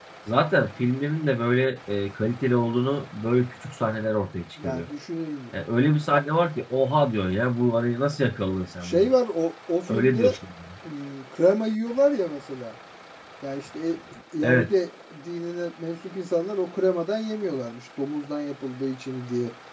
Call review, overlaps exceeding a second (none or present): none